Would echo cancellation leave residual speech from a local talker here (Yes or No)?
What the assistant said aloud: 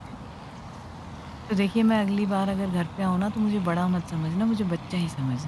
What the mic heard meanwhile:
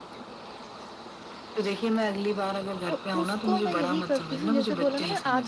Yes